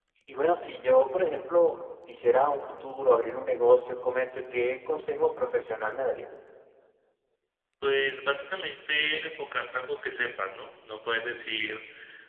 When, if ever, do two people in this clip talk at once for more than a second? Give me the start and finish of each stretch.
none

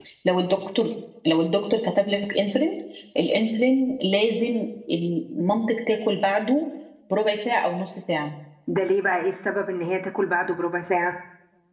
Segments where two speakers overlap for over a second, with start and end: none

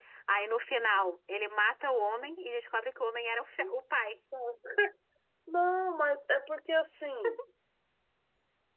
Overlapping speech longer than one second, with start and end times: none

